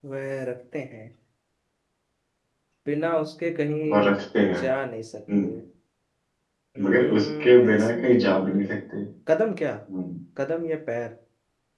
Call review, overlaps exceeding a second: present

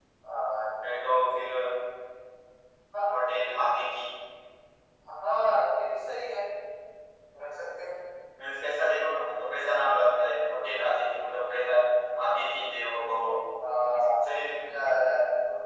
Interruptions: none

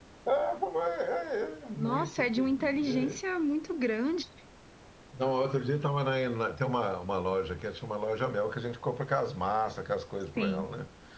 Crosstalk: present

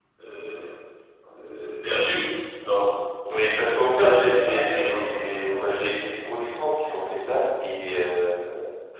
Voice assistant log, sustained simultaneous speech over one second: present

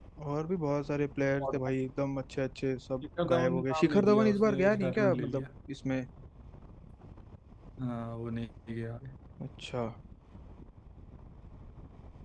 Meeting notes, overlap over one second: present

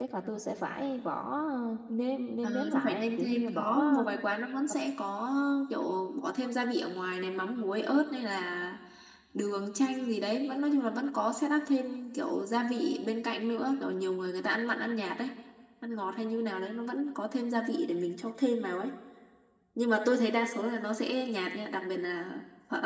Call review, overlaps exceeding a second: present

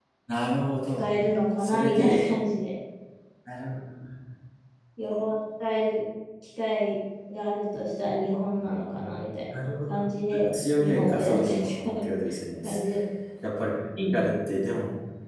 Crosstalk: present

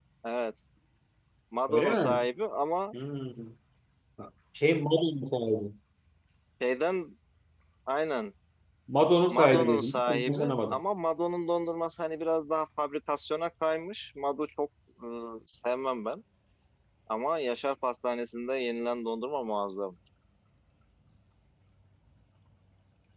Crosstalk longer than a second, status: present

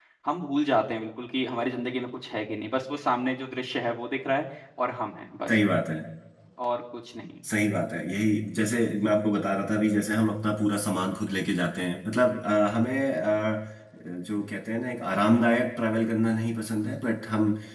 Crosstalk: none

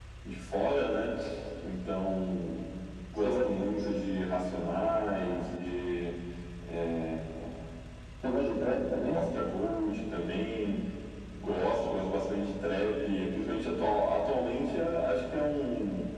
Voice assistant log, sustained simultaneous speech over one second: none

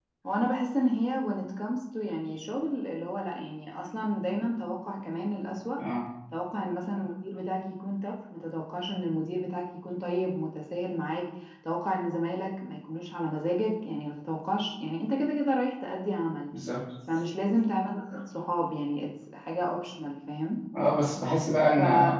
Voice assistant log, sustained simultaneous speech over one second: none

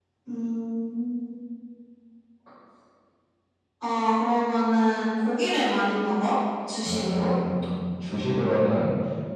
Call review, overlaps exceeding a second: none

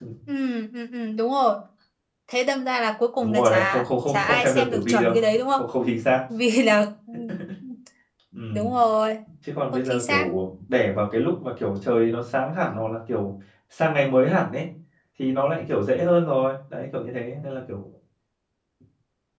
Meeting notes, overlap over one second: present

